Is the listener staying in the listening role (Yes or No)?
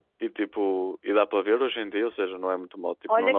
No